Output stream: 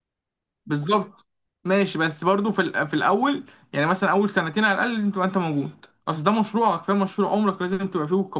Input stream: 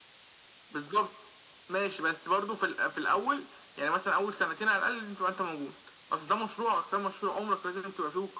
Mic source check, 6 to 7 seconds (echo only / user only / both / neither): echo only